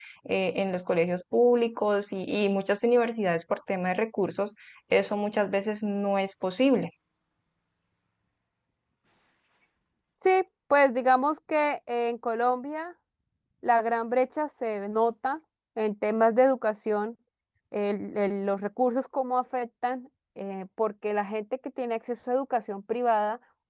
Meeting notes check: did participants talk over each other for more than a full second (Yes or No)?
No